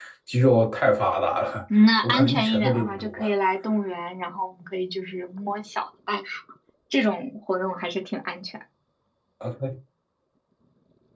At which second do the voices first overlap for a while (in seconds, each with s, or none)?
2.0 s